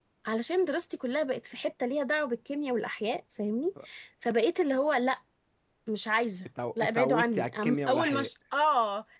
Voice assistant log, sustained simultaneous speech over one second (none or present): present